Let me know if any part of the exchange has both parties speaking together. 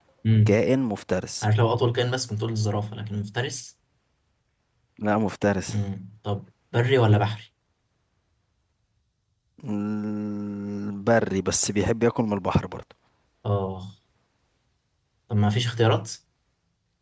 No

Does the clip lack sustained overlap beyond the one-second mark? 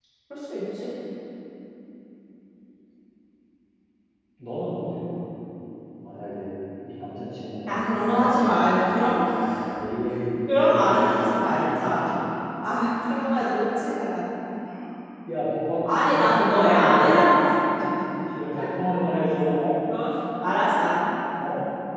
No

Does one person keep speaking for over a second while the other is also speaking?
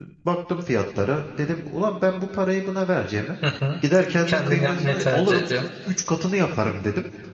Yes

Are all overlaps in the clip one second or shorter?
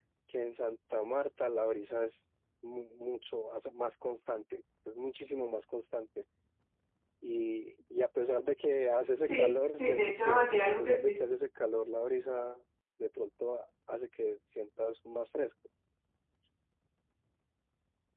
No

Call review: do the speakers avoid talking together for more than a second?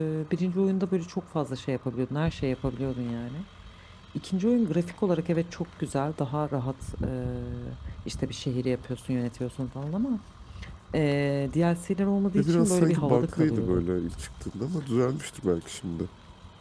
No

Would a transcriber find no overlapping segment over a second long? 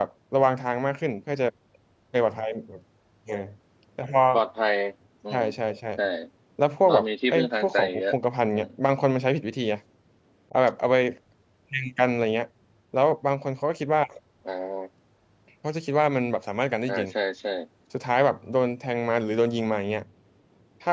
No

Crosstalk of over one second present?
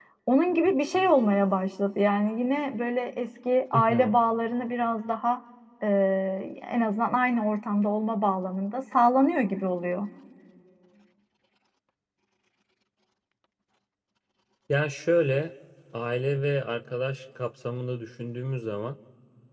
No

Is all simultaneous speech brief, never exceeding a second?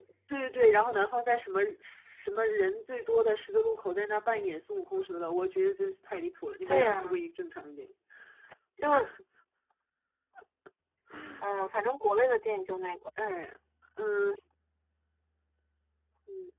Yes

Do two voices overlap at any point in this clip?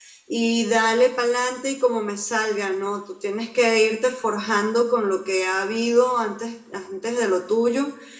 No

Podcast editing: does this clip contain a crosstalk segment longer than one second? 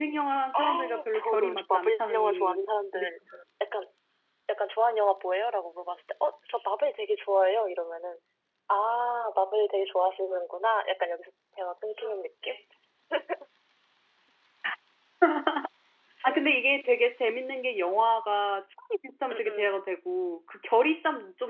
Yes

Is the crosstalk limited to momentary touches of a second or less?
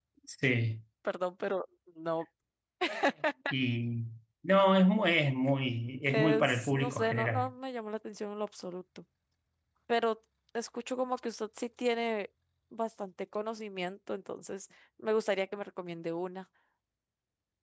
No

